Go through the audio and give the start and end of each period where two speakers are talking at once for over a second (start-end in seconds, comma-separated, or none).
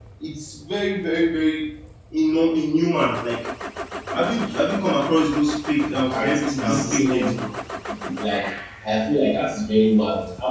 5.9-7.3